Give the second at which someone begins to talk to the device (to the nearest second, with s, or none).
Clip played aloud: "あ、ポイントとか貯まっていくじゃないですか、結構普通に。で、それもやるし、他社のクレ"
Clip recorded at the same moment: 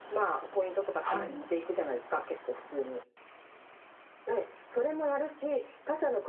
1 s